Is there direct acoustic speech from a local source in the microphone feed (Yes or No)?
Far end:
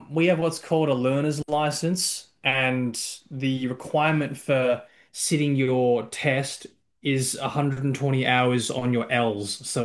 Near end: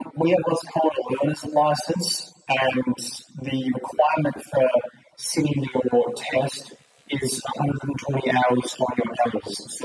No